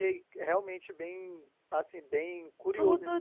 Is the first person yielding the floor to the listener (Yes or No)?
Yes